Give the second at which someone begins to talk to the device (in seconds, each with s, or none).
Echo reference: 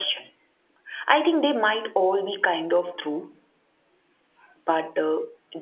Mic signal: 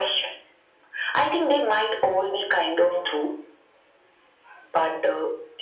none